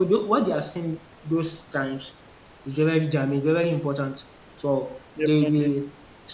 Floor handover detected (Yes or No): No